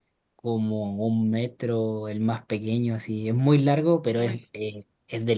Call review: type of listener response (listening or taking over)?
listening